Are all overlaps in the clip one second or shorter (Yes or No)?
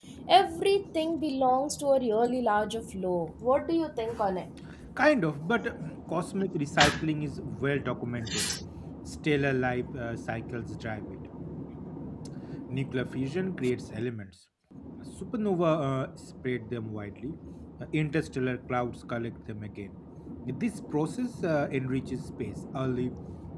Yes